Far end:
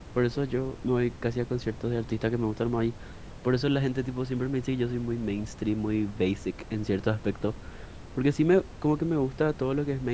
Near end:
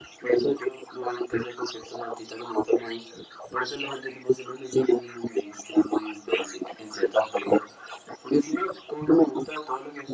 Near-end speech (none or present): none